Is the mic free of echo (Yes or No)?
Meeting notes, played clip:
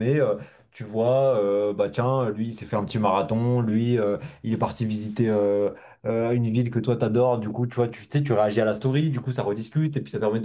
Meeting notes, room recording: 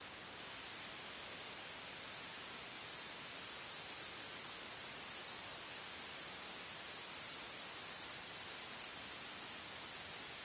Yes